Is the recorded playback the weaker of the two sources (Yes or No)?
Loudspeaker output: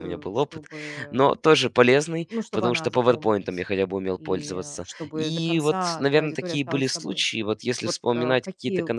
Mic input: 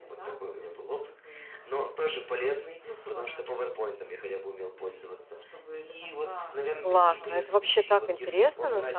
Yes